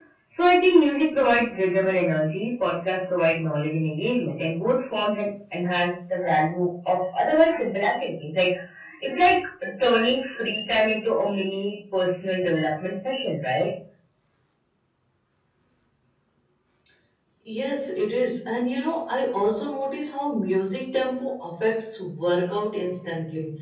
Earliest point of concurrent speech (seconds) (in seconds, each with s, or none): none